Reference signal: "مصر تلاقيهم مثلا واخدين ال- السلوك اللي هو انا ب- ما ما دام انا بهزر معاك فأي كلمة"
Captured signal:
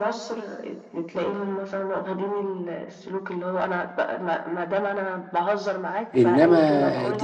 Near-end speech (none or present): present